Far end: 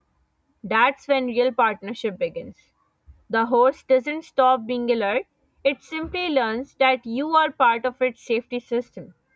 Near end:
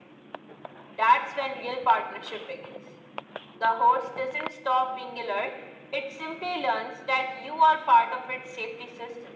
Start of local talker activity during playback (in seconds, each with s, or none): none